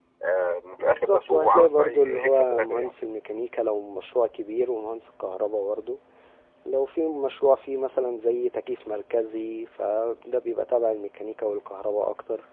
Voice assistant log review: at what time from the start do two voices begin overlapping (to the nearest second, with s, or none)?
1 s